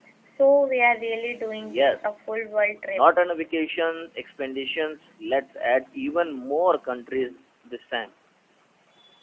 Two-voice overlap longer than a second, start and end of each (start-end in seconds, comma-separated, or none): none